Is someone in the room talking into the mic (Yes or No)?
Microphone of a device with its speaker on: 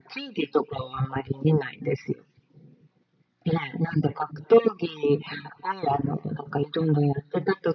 No